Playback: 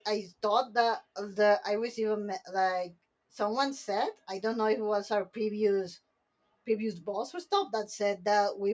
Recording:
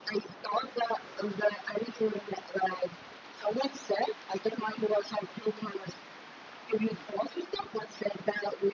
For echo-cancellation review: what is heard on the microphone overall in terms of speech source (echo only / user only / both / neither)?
echo only